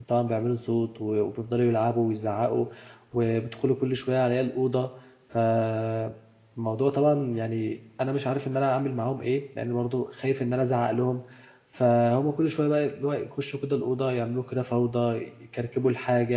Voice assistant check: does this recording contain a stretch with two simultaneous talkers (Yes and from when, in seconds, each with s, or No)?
No